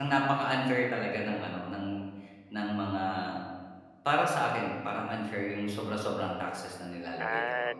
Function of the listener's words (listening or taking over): taking over